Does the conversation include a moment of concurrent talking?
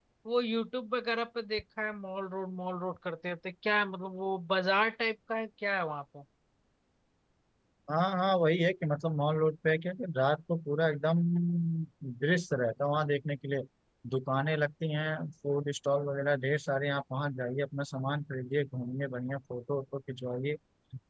No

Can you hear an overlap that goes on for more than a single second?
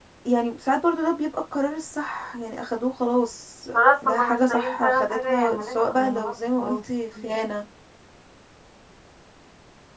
Yes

